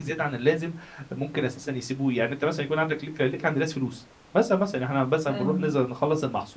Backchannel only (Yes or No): Yes